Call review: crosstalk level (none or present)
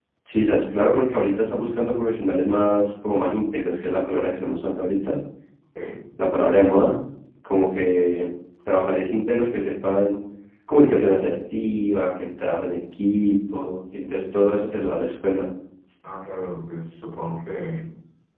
none